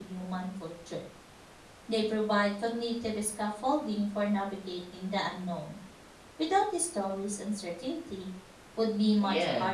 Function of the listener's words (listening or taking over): taking over